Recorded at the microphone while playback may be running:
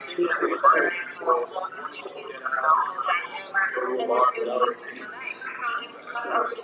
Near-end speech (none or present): none